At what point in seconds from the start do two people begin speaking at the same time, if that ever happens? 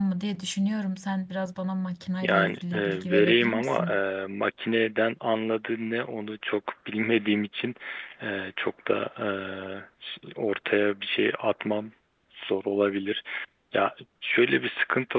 2.2 s

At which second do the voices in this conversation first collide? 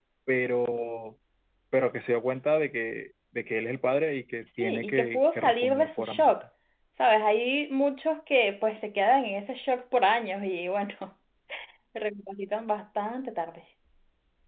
4.6 s

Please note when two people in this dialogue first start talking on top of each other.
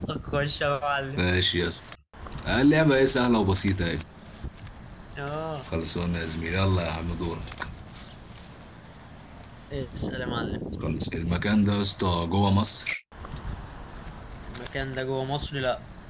none

